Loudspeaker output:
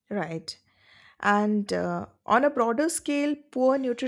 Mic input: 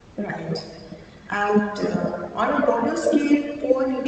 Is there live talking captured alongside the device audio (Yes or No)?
No